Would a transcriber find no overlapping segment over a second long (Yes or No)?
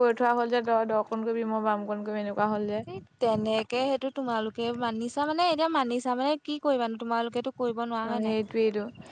Yes